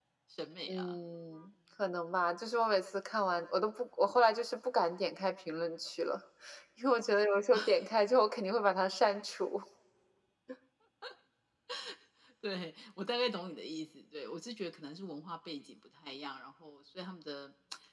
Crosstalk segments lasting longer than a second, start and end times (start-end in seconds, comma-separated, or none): none